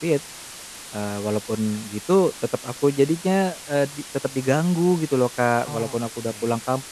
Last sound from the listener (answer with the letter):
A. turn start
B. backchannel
B